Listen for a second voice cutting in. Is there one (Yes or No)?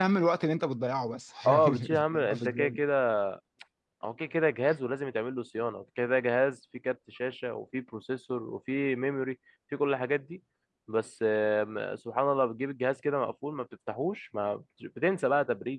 Yes